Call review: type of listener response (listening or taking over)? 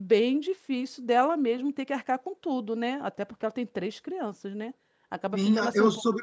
taking over